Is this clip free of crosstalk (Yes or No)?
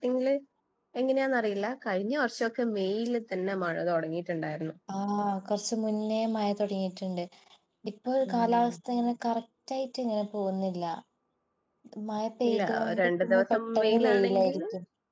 No